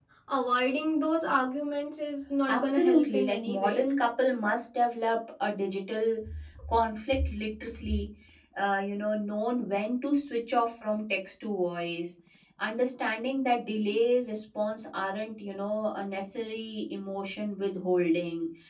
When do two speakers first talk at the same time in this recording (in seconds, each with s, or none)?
2.5 s